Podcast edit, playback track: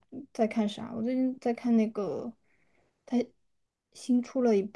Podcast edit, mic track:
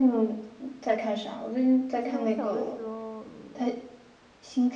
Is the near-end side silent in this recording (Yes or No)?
No